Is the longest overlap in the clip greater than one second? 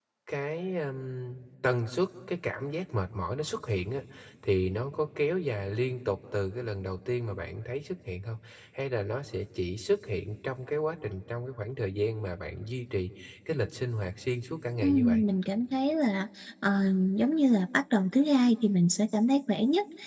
No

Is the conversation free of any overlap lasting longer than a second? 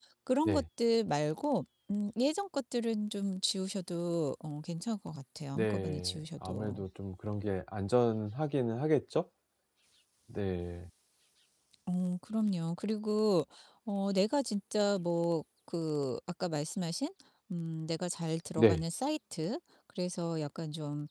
No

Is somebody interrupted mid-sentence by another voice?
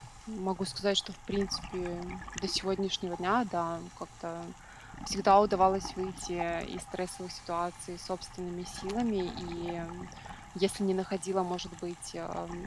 No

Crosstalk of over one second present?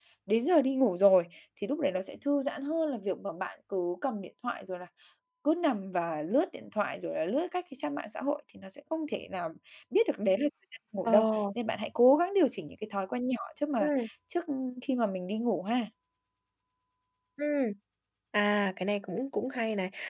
No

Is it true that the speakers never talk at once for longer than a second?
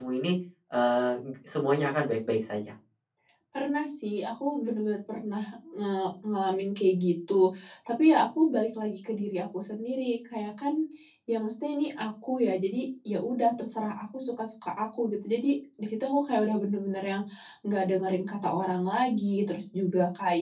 Yes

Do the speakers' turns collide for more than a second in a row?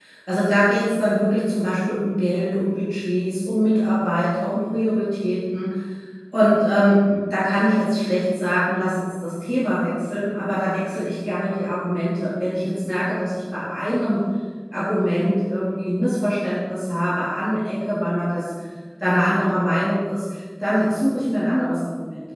No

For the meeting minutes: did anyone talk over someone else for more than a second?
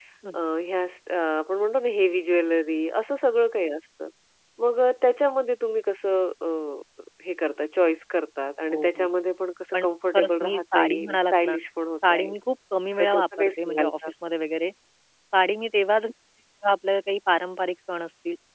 Yes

